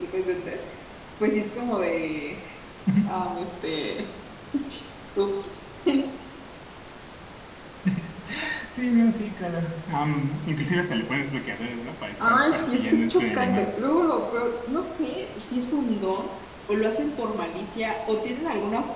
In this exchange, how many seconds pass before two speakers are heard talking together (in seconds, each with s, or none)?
12.2 s